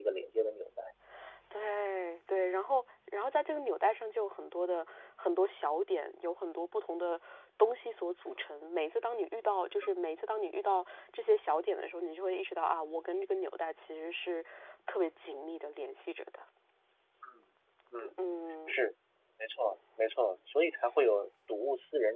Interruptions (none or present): none